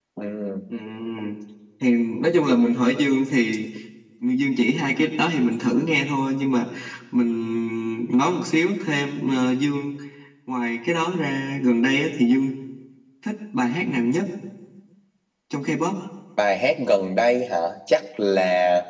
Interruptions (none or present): none